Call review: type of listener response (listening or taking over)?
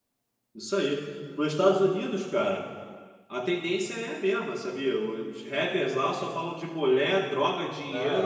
taking over